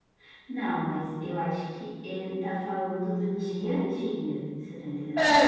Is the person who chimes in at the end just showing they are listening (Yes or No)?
No